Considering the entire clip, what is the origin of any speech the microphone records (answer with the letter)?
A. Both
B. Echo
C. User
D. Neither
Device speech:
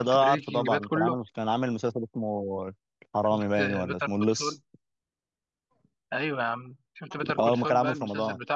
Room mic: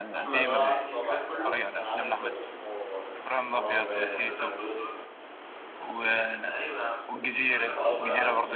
A